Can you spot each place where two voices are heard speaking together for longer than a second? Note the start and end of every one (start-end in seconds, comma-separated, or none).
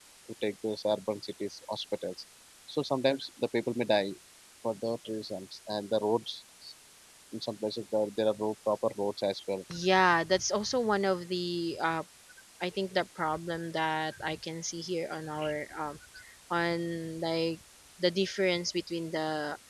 none